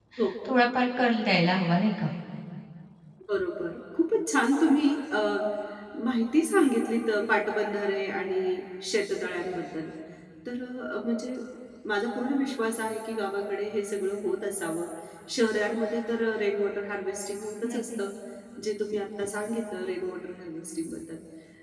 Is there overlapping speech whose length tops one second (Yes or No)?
No